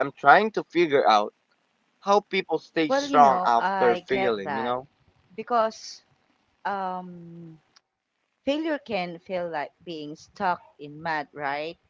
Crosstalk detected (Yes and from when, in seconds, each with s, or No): Yes, from 2.9 s